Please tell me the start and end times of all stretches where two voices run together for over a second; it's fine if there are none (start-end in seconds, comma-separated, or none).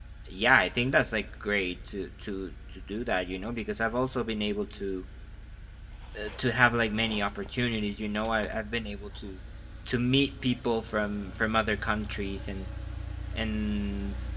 none